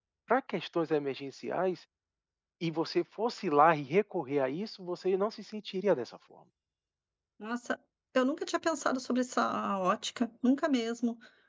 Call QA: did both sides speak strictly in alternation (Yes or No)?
Yes